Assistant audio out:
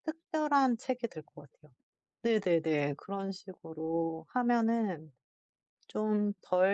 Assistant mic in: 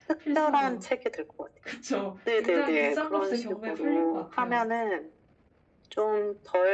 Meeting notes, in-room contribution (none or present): present